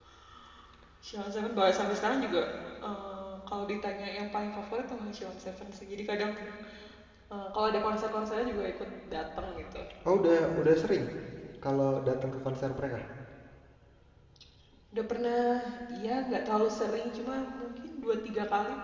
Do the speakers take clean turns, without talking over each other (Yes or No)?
Yes